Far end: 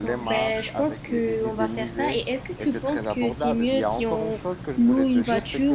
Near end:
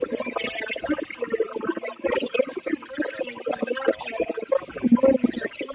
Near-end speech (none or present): none